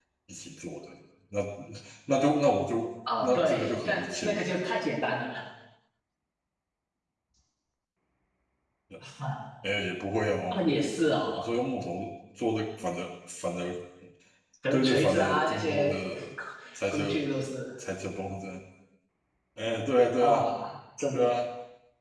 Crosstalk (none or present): present